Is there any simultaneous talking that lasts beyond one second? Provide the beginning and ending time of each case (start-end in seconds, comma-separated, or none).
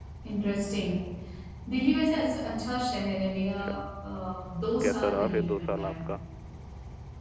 4.8-6.1